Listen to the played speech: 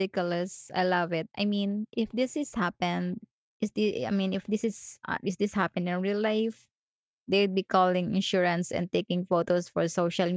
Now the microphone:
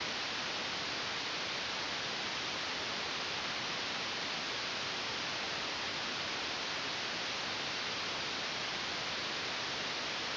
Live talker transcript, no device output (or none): none